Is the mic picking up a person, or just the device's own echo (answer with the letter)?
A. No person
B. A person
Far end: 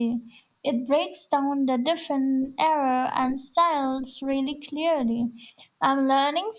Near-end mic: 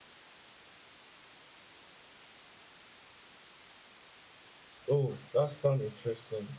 B